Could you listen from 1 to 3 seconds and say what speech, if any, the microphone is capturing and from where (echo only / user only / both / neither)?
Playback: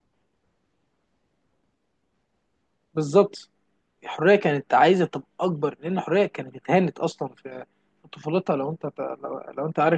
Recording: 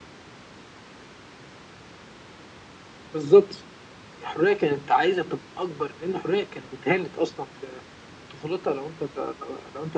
neither